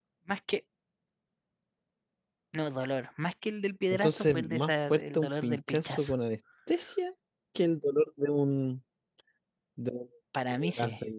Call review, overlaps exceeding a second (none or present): present